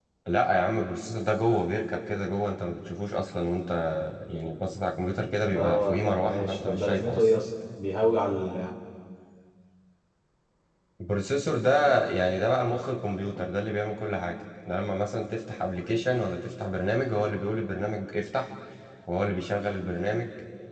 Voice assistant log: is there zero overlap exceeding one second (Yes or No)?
No